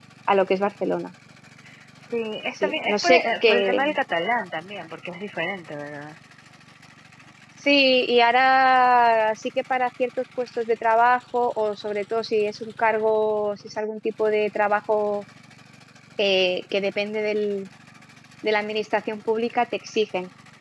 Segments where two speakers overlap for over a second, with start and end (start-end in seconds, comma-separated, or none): 2.6-3.8